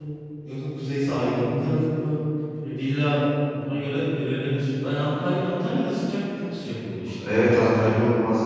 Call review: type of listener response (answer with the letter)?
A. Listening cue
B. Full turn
B